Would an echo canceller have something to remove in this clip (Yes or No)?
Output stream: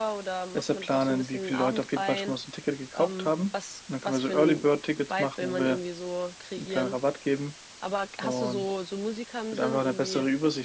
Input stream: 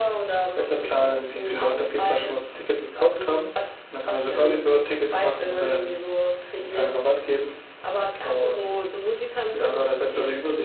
Yes